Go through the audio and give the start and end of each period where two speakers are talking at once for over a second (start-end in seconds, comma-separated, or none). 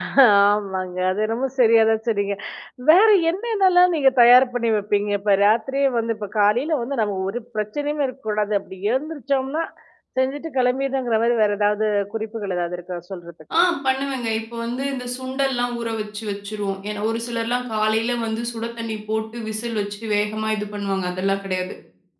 none